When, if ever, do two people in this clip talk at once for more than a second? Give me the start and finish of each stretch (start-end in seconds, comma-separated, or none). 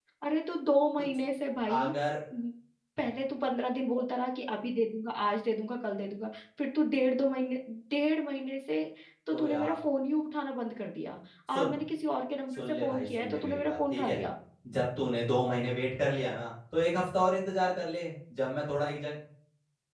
12.5-14.2